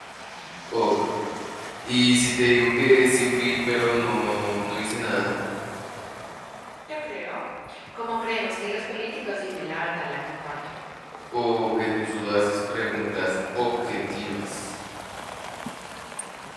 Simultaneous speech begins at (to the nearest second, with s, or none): none